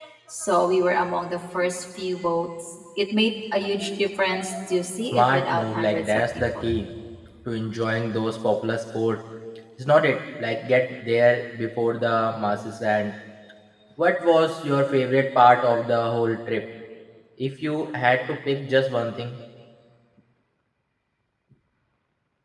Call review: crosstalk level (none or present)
present